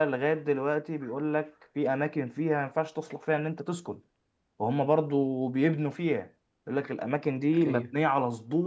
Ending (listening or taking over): listening